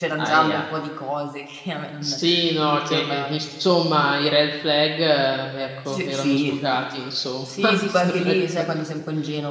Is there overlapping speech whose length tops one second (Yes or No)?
Yes